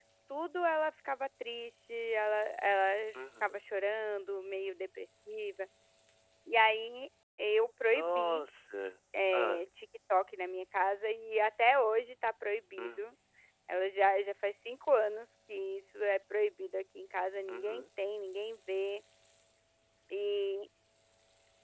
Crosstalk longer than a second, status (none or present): none